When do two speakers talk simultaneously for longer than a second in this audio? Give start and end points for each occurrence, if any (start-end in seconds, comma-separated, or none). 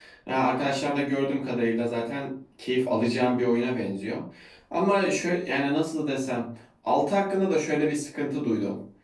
none